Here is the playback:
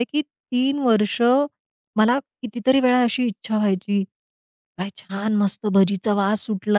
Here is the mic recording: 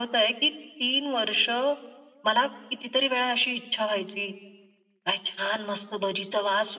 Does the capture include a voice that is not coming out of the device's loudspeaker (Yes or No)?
No